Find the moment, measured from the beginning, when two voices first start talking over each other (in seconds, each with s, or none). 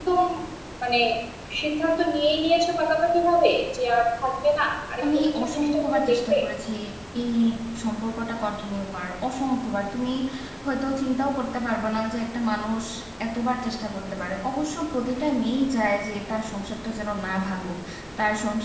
5.0 s